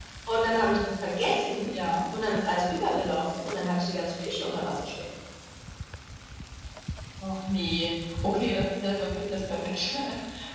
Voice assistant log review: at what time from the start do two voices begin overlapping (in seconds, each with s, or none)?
none